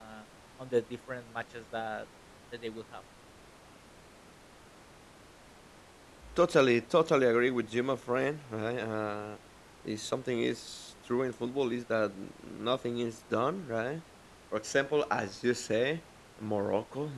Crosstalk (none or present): none